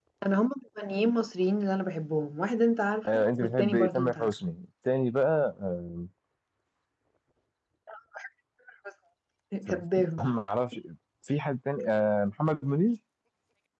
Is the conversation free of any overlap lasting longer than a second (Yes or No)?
No